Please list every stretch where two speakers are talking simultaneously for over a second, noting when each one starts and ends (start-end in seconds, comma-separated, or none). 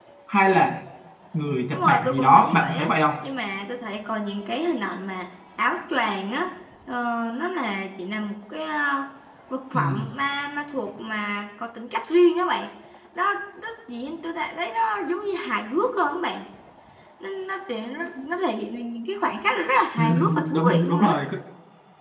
1.7-2.9, 20.0-21.2